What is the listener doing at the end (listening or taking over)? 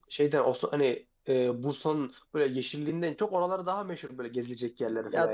taking over